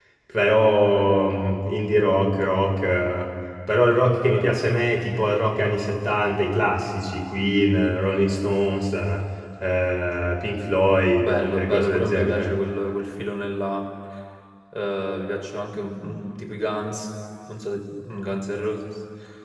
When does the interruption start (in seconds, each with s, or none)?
11.2 s